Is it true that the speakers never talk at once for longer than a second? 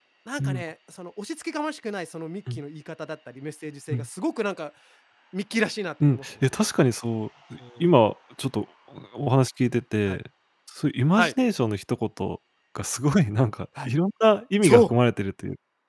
Yes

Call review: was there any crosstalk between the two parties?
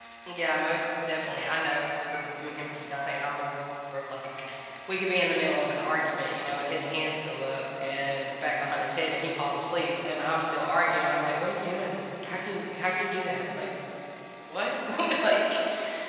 No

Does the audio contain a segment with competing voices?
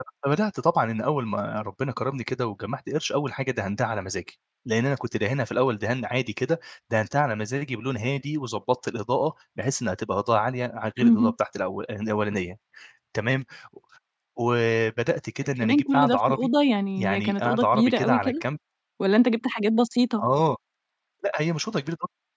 Yes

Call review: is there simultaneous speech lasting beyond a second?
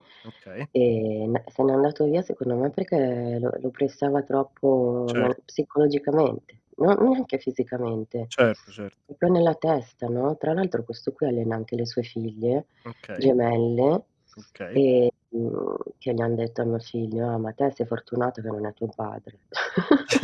No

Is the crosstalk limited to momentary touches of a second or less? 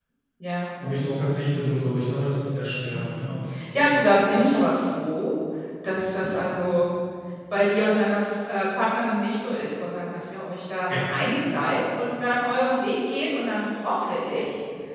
Yes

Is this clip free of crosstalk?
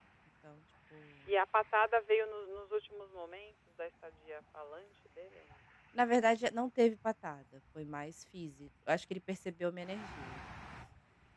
Yes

